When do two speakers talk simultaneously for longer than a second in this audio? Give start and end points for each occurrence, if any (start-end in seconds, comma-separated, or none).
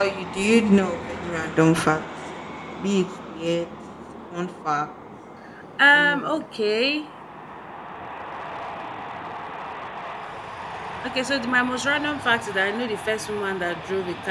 none